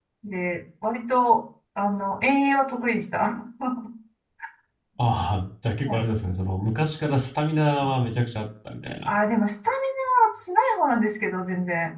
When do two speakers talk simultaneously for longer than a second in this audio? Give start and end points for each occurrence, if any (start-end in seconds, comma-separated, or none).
none